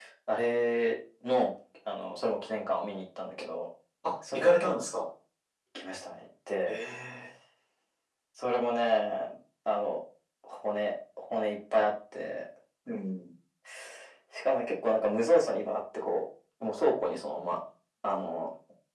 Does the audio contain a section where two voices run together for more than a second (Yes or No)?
No